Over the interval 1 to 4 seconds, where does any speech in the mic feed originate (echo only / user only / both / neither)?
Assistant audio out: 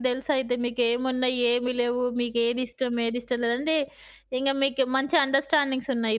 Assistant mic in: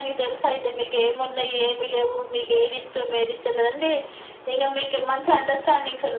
echo only